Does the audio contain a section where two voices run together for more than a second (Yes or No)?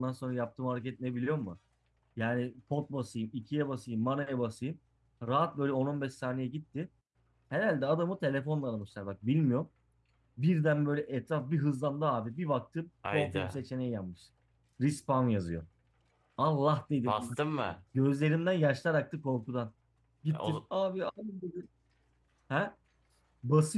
No